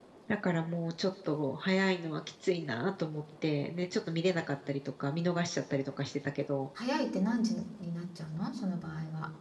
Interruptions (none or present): none